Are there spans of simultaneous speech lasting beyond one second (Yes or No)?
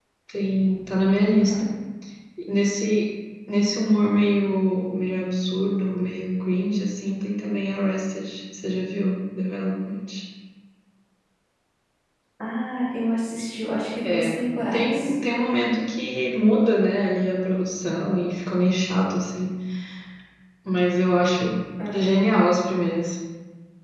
No